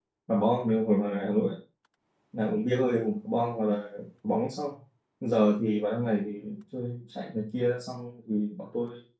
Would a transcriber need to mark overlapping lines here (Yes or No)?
No